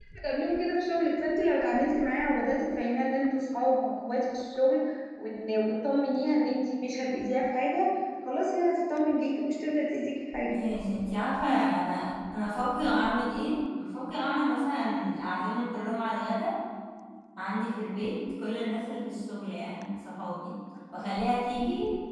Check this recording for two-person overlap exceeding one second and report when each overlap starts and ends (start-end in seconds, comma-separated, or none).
none